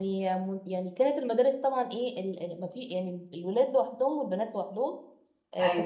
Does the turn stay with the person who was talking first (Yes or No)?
Yes